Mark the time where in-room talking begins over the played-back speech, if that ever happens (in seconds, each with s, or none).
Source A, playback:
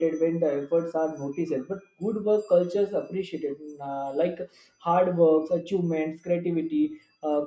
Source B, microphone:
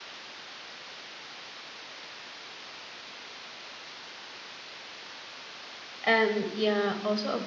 6.0 s